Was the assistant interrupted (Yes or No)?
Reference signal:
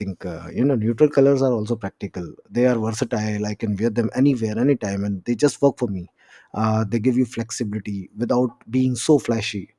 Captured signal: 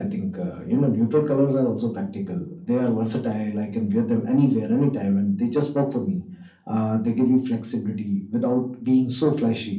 No